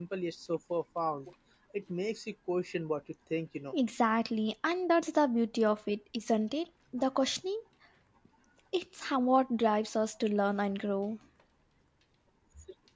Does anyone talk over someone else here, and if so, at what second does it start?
none

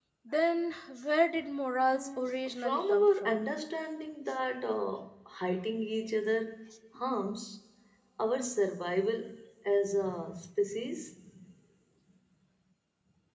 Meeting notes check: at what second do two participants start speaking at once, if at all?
1.9 s

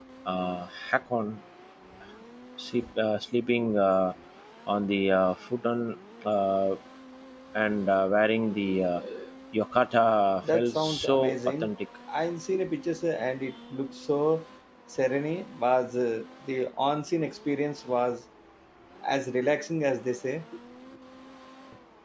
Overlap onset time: 10.4 s

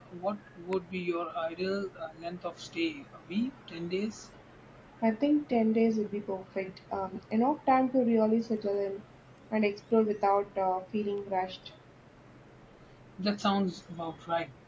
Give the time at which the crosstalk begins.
none

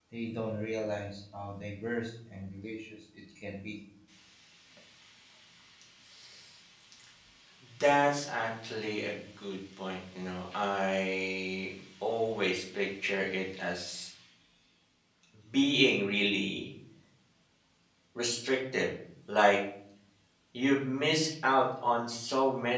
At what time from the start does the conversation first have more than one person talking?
none

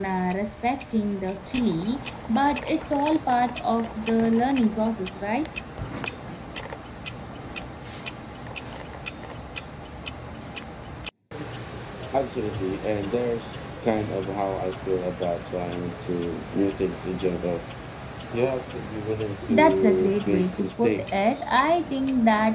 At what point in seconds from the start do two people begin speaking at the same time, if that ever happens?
19.4 s

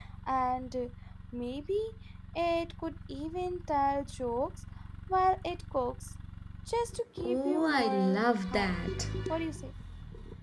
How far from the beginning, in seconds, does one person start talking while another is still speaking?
7.2 s

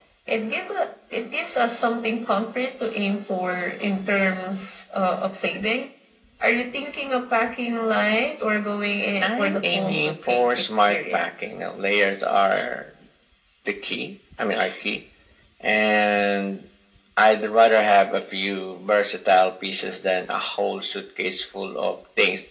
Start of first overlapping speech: 9.2 s

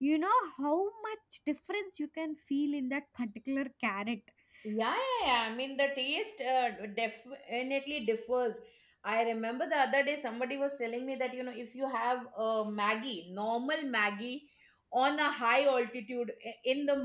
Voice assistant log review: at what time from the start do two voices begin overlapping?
none

